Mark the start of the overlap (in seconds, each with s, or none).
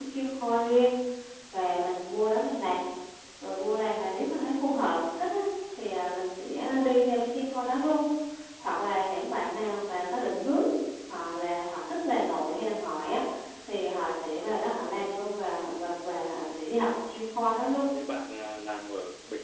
none